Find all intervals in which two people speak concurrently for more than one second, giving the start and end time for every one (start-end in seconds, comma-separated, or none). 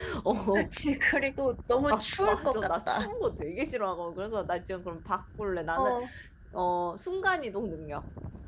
1.9-3.1